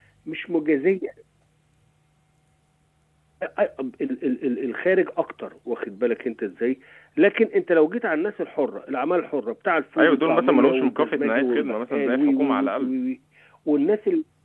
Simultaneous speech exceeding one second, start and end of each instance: 10.0-12.9

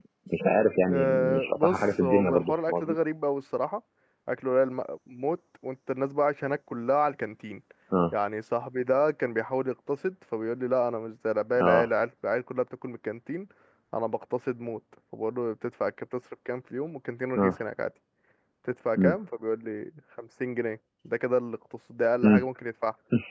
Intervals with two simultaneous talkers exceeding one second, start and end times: 0.9-3.0

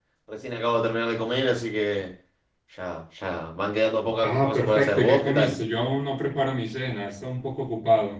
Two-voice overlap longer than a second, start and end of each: 4.2-5.6

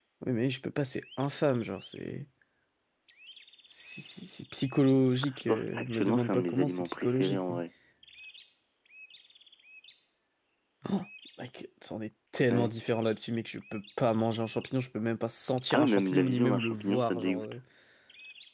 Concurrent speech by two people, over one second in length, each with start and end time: 5.5-7.6, 15.7-17.6

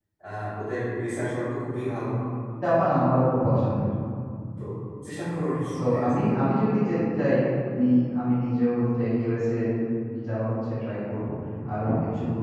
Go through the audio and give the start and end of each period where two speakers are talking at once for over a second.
none

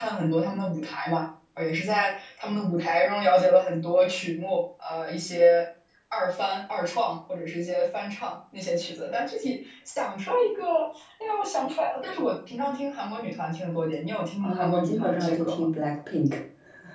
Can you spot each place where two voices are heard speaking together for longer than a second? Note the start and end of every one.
14.4-15.7

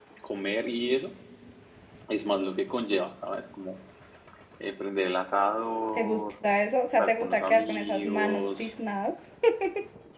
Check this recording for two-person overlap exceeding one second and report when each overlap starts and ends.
6.9-8.7

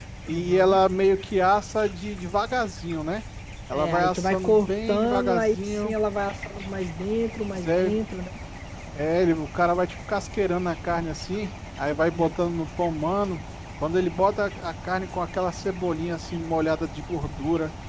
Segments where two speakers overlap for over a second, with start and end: 3.7-6.0

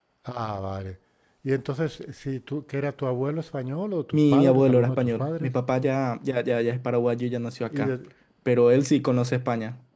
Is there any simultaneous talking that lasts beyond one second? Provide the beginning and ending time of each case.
4.1-5.5

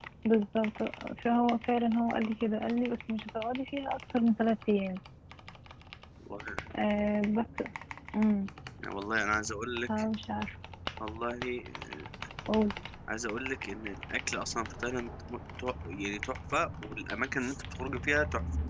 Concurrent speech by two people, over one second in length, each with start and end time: none

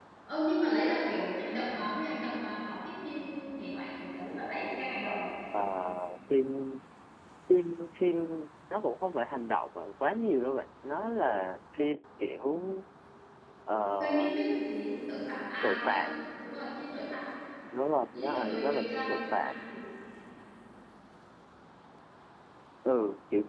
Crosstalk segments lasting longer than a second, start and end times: 18.1-19.5

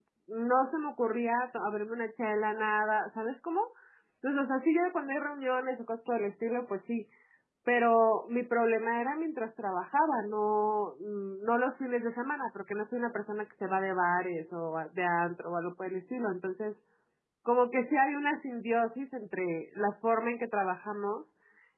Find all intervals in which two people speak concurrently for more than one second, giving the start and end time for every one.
none

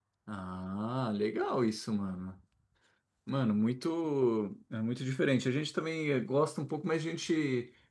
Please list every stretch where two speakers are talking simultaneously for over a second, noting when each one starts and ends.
none

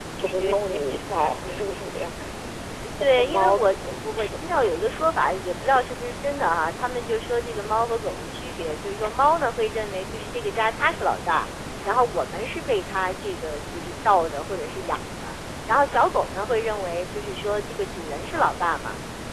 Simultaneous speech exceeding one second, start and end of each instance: 3.0-4.3

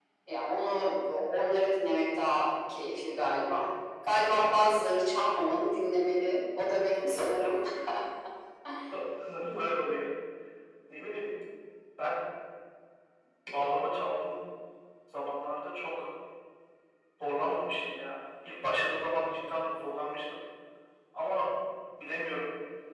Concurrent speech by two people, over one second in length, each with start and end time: none

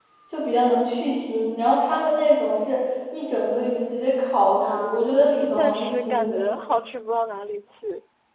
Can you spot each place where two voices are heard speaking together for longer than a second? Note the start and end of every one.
4.6-6.4

